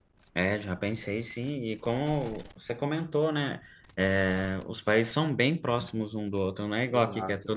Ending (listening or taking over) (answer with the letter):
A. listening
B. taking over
A